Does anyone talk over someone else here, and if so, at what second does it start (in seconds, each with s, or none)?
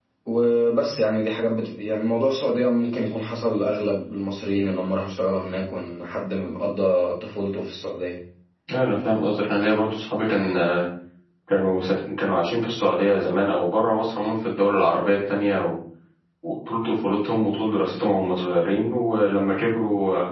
none